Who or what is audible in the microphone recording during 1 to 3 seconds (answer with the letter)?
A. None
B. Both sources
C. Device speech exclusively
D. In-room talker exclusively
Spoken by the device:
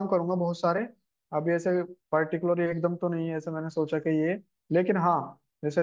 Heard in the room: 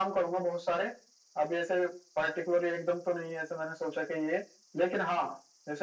C